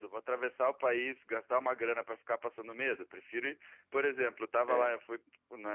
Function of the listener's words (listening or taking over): listening